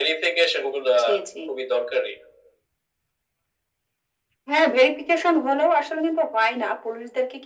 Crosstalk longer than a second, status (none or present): none